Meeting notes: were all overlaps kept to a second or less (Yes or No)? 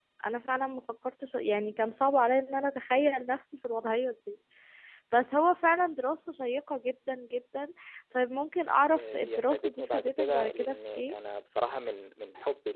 No